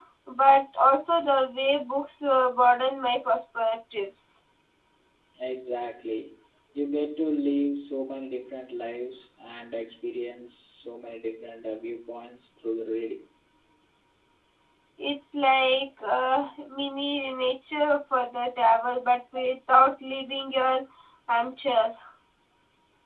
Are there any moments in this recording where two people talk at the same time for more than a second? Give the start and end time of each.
none

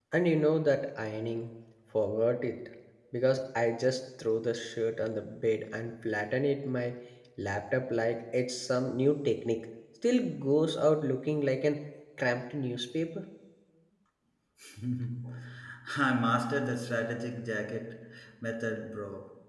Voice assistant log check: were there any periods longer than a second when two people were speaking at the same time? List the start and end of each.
none

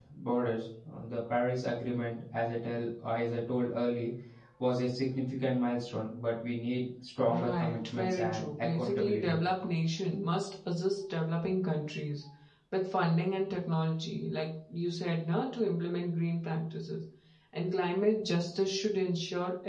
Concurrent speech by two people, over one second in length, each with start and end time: 7.3-9.4

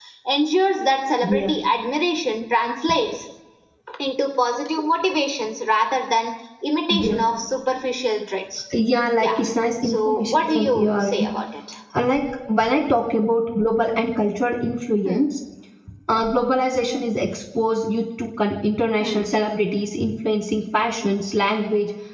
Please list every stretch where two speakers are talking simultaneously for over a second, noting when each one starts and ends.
9.8-11.3

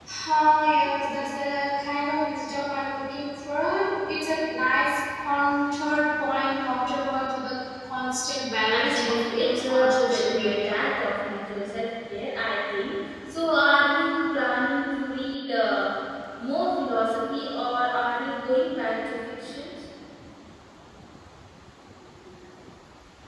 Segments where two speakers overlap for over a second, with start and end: 8.7-10.8

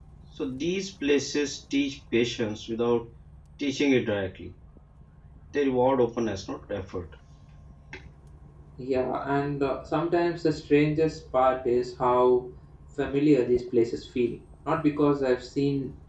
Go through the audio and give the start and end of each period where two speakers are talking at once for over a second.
none

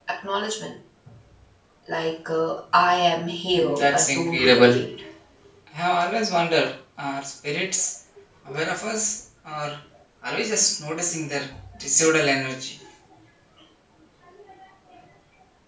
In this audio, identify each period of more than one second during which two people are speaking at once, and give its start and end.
3.5-4.8

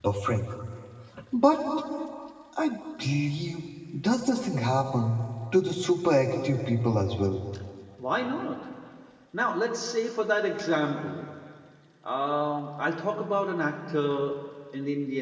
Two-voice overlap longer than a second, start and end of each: none

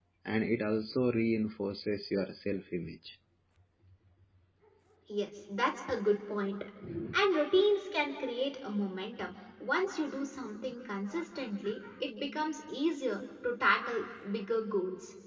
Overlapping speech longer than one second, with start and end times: none

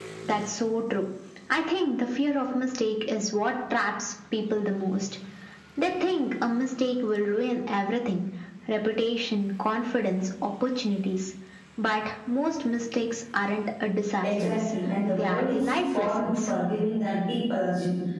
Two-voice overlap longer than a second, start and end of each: 15.1-16.5

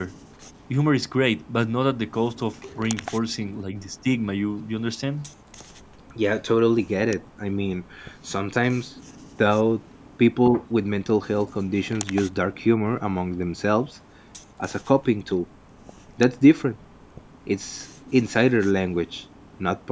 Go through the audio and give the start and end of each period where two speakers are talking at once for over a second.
none

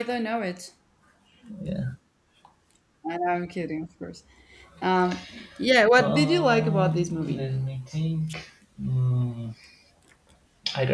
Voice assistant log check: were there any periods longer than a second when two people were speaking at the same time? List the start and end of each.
6.0-7.5

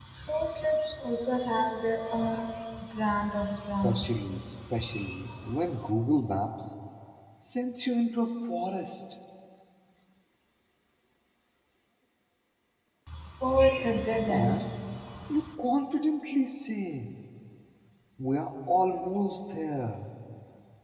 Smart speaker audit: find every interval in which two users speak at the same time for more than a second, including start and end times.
none

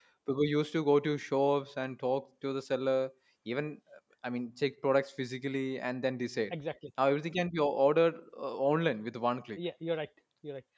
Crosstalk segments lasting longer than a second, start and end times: none

